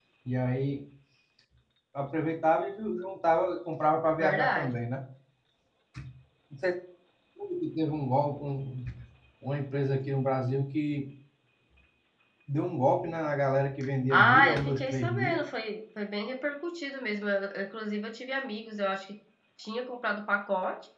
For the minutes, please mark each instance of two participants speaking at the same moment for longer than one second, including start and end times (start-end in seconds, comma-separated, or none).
14.1-15.4